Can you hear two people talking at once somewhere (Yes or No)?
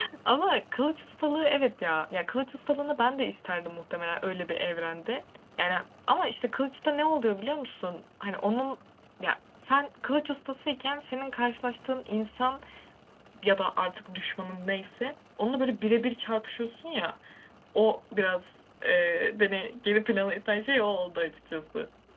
No